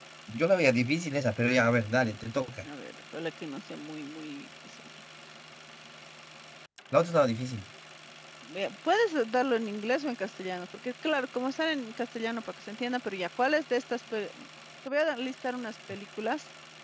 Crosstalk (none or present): none